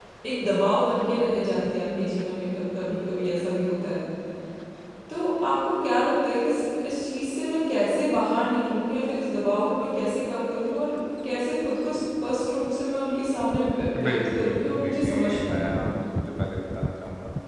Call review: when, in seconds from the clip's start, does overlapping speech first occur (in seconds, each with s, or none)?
13.9 s